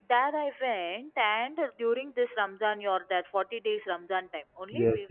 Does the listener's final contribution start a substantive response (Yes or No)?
Yes